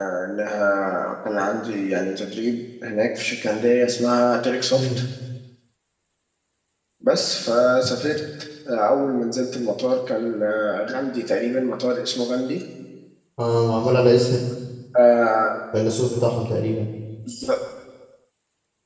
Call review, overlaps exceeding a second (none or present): none